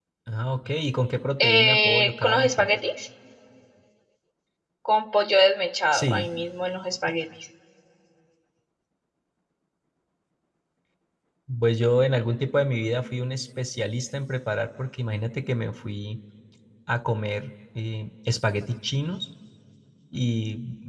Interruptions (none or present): present